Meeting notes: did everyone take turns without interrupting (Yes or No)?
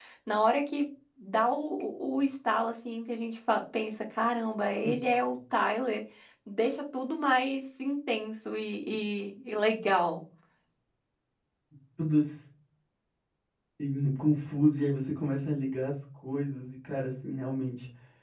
Yes